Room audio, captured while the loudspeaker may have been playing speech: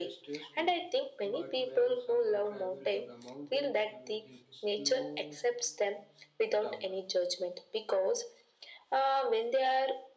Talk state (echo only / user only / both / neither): both